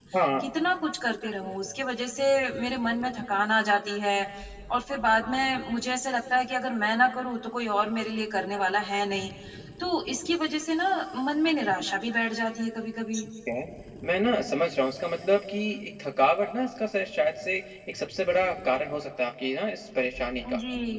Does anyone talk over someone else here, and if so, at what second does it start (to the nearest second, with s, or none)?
none